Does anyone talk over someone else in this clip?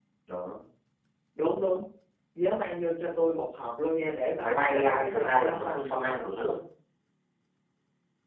Yes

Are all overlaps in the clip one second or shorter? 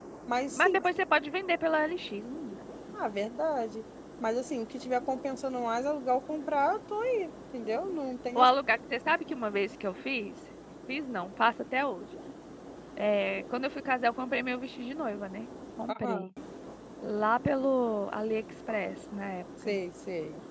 Yes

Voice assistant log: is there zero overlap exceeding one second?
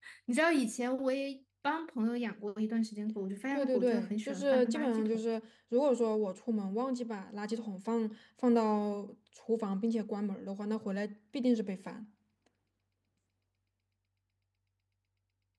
No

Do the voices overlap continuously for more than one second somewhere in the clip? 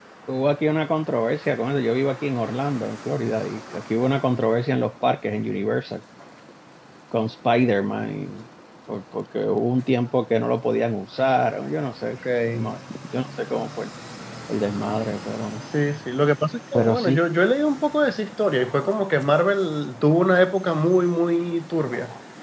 No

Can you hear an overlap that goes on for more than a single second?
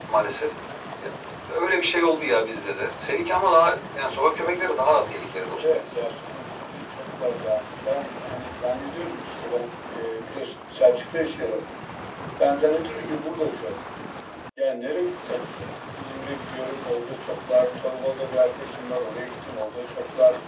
No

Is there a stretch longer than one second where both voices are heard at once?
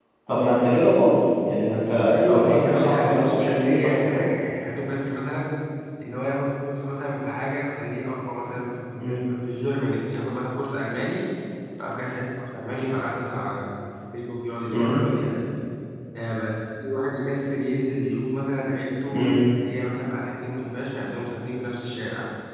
Yes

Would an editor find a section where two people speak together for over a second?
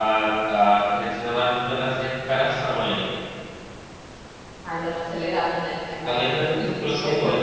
Yes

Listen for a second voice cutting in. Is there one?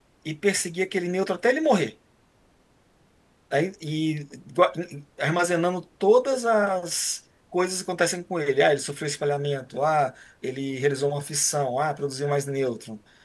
No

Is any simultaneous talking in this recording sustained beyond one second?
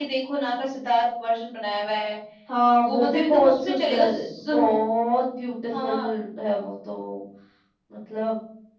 Yes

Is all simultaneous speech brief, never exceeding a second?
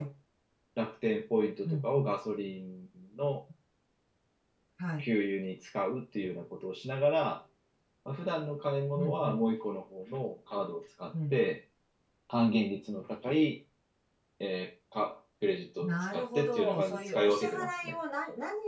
No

